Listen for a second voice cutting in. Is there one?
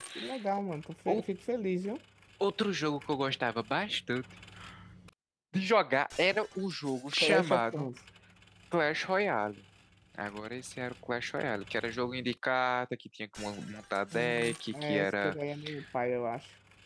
Yes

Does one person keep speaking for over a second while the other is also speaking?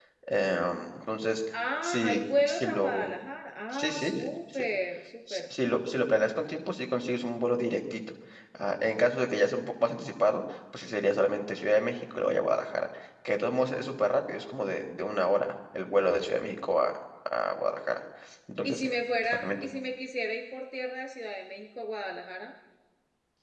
Yes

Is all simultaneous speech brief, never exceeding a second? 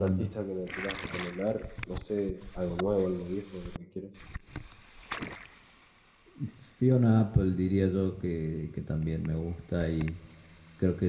Yes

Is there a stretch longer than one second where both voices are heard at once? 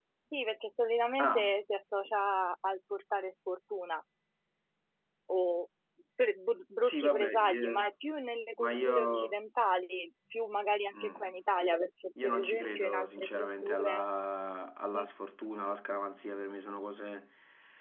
Yes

